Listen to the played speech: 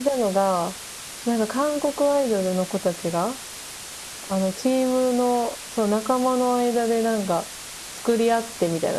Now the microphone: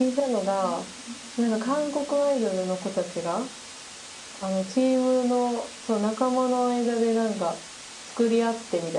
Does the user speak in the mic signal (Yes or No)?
Yes